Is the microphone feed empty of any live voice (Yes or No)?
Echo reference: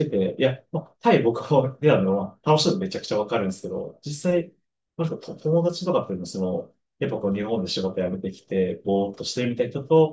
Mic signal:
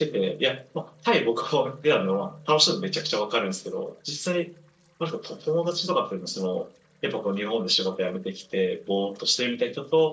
Yes